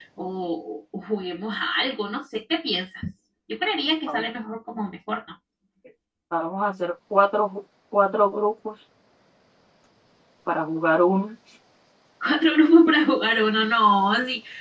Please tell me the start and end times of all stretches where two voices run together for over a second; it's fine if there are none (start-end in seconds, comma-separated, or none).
none